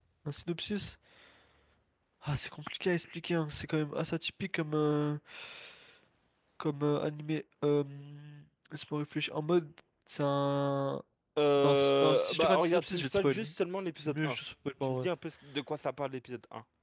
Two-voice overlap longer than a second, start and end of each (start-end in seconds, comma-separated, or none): 11.6-13.5